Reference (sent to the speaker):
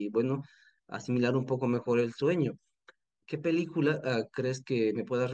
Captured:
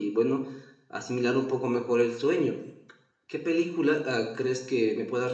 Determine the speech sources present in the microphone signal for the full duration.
echo only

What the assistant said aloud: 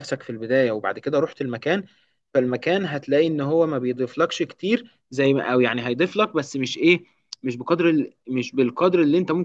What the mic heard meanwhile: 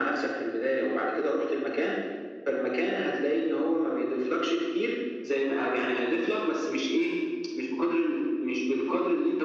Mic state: echo only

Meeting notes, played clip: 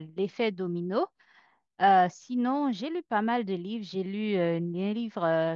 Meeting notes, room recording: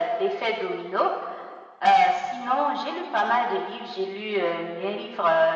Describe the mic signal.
echo only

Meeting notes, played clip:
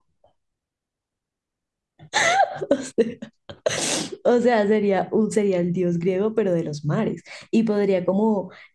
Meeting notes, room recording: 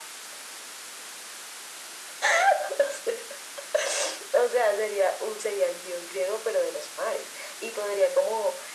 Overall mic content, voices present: echo only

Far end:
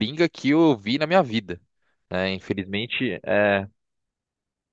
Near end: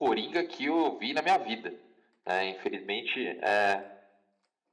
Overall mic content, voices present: echo only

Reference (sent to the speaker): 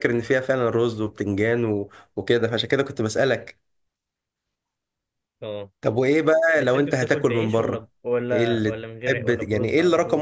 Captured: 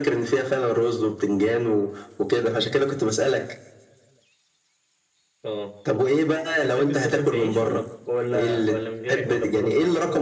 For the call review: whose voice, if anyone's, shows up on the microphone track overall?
echo only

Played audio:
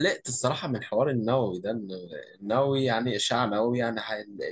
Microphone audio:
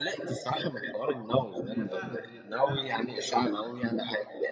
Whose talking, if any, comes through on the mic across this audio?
both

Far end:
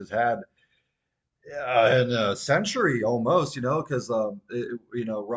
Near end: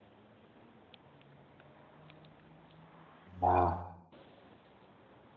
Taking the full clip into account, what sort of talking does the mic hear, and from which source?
user only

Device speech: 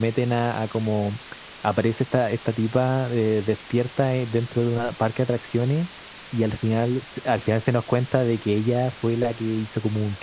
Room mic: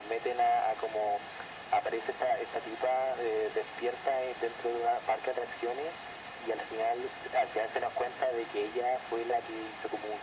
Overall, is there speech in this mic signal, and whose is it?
echo only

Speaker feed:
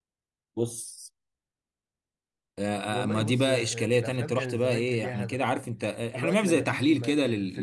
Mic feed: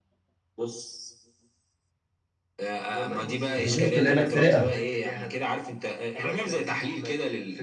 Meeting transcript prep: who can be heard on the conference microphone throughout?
both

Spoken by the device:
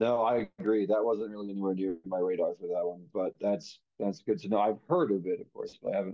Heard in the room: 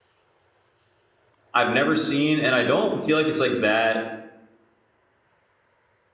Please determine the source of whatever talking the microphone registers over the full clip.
user only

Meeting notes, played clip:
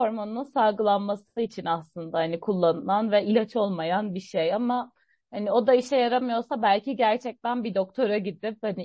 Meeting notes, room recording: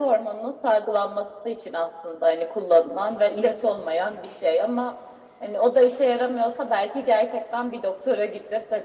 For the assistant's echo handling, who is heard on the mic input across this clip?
echo only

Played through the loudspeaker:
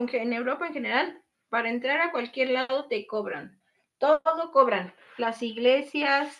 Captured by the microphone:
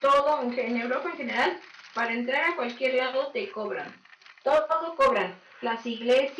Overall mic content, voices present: echo only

